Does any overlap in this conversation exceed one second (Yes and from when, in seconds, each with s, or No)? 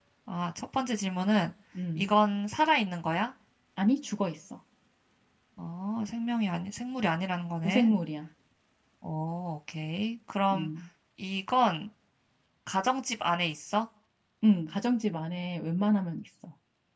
No